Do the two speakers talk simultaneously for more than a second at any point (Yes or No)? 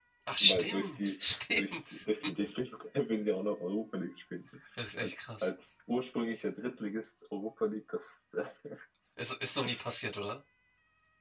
Yes